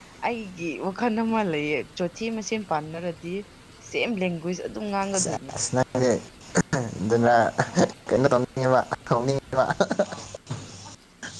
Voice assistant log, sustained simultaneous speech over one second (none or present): none